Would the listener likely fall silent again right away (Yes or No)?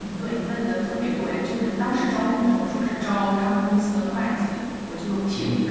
Yes